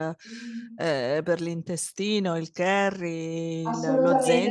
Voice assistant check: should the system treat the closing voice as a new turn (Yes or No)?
Yes